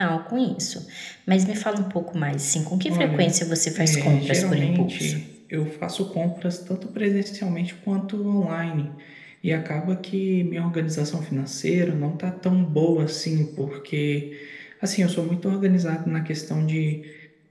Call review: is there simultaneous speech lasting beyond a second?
Yes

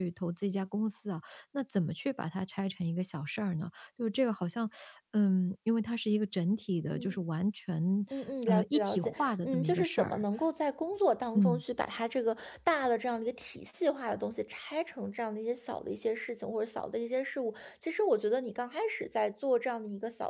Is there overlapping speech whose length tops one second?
Yes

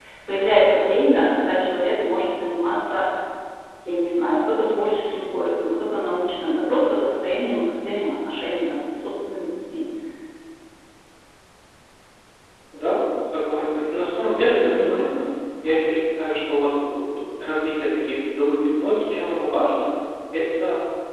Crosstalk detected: No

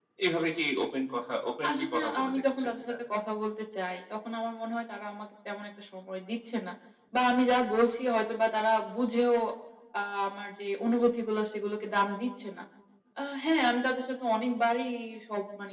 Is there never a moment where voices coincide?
No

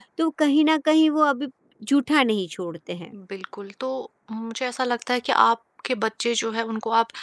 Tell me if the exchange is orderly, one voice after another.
Yes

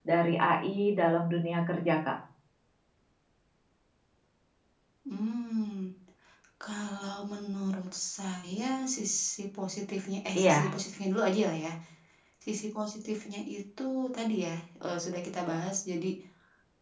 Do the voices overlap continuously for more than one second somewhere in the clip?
No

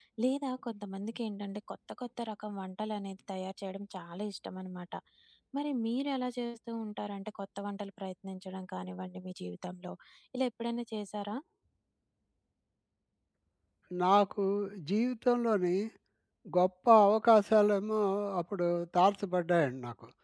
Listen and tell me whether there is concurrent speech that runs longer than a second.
No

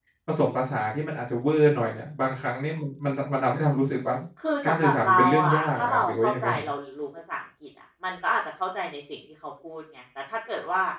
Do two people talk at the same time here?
Yes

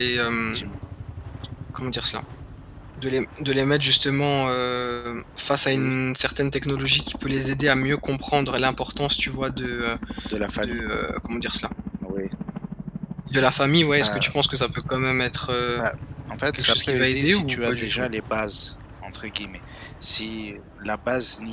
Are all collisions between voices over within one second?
No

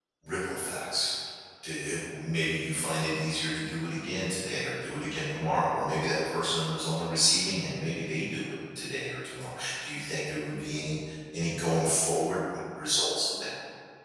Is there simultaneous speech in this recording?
No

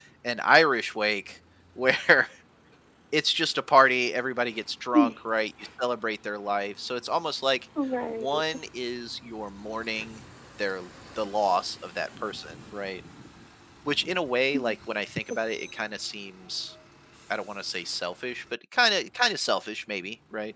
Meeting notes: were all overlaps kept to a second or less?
Yes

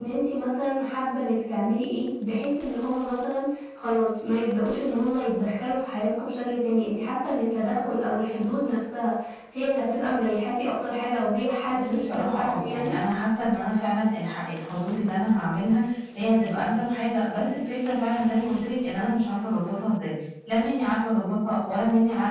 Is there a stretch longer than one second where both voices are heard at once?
Yes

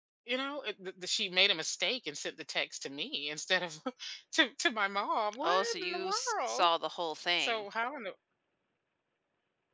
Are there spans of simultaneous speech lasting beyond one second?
Yes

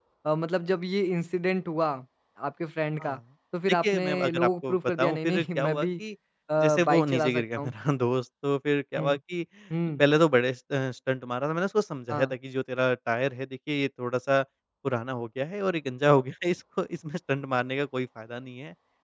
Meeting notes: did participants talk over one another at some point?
Yes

